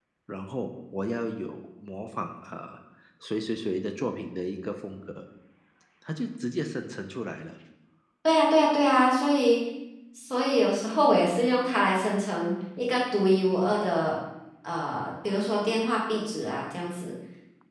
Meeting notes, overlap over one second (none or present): none